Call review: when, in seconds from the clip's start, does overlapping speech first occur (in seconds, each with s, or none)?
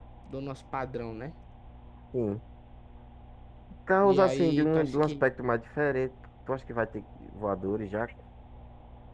4.0 s